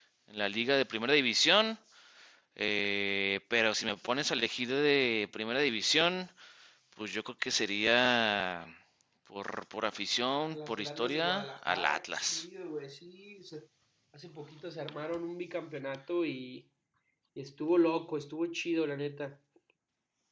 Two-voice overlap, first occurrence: 10 s

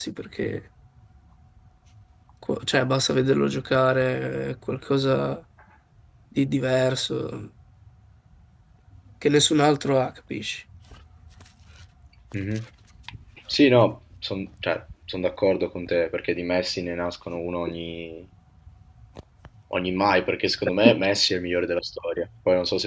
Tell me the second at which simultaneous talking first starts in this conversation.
none

